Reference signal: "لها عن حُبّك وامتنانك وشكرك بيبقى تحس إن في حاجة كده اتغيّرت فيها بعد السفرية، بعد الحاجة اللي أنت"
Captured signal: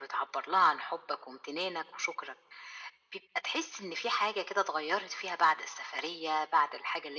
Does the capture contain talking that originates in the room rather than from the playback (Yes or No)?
No